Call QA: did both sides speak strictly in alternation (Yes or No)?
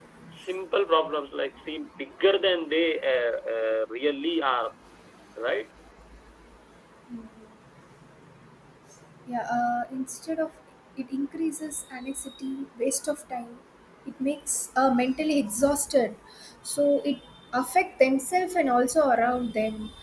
Yes